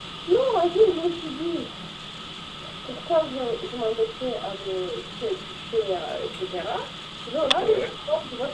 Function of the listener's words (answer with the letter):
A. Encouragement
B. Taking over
A